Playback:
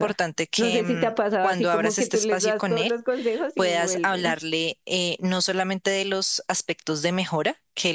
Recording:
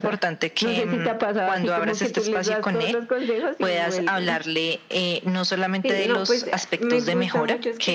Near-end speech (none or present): present